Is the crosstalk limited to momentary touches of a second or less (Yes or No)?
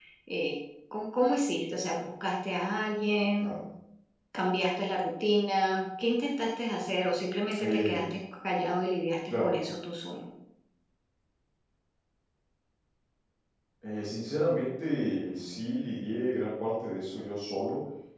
Yes